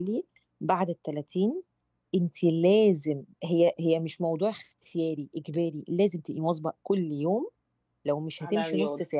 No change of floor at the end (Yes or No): Yes